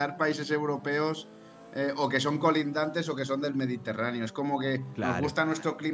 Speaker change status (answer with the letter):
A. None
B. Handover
A